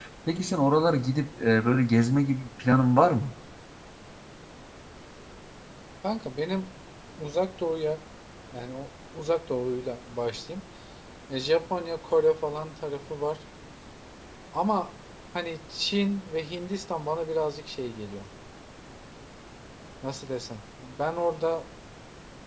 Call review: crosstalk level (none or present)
none